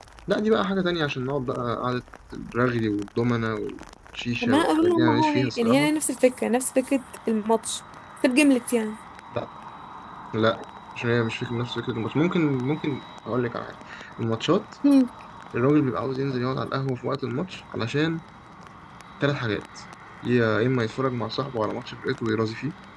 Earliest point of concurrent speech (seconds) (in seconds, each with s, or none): 4.4 s